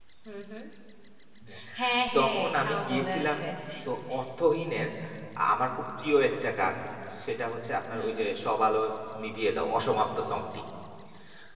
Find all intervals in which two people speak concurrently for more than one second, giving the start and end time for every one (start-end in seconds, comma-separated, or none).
2.2-3.4